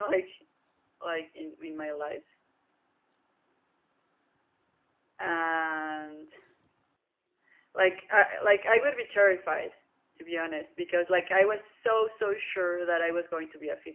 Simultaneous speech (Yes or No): No